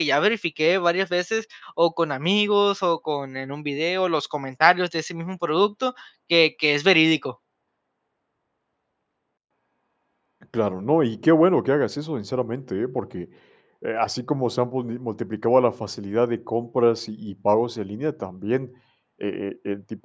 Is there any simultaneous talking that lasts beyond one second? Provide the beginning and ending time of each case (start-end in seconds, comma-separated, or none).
none